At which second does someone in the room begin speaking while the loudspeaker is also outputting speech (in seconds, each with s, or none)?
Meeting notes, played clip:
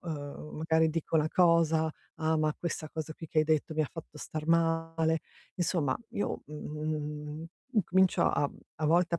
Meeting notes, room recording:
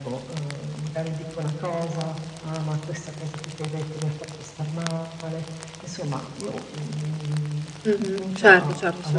7.8 s